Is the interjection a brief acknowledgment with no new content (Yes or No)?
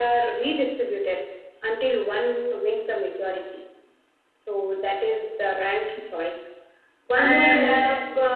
Yes